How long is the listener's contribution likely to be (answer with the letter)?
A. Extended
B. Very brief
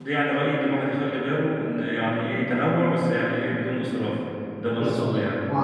A